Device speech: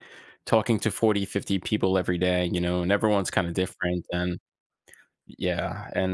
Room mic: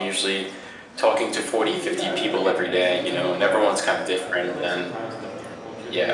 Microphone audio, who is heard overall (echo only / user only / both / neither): both